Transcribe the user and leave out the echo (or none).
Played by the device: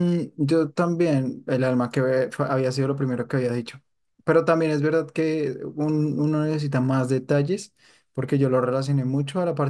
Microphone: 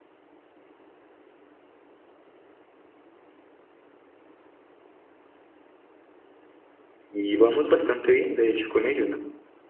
Y vamos bastante bien, de hecho, con ello, ¿no?